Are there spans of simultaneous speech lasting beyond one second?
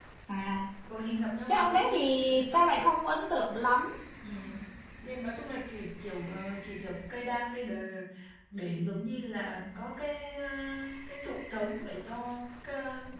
No

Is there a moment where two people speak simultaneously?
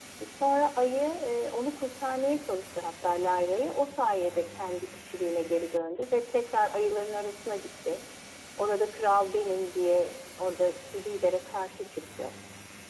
No

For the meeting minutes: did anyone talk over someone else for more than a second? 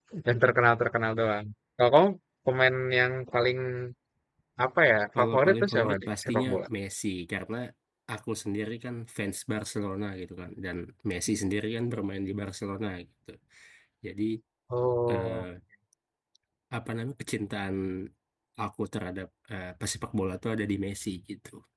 Yes, from 5.2 s

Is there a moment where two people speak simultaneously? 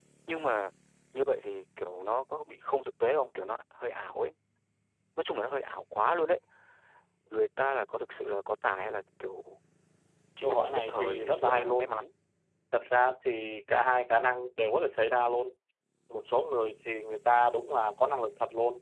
Yes, from 10.4 s

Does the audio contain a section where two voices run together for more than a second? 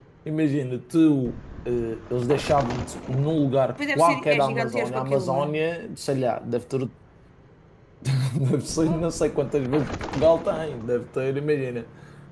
Yes, from 3.8 s

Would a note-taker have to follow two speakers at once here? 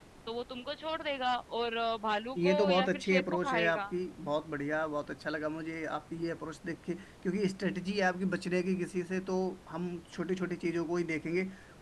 Yes, from 2.4 s

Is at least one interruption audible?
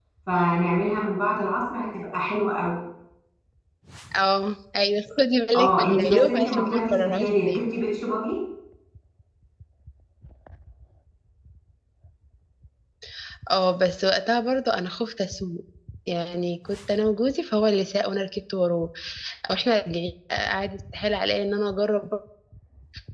Yes, from 5.5 s

